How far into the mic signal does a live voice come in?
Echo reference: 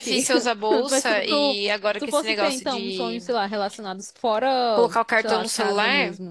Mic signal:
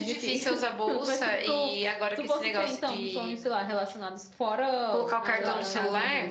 5.2 s

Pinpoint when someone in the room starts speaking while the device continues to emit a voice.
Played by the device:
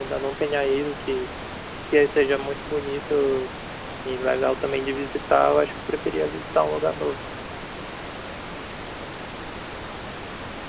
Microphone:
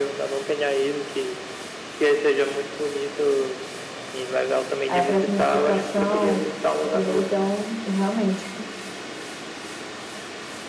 4.9 s

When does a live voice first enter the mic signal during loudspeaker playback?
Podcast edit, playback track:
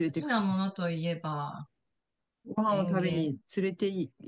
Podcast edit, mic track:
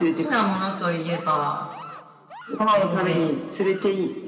3.0 s

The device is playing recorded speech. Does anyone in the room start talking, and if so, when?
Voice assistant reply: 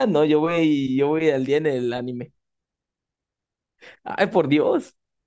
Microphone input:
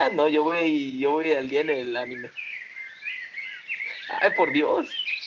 none

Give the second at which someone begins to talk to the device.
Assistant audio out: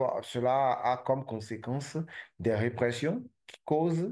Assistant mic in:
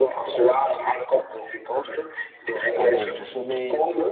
2.7 s

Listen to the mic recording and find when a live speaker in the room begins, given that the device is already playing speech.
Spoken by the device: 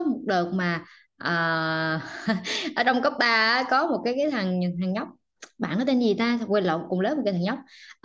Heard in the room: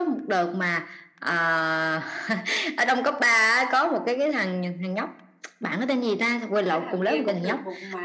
6.7 s

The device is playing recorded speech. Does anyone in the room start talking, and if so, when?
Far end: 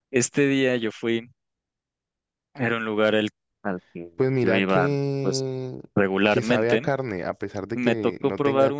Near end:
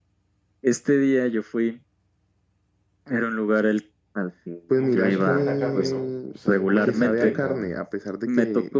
4.7 s

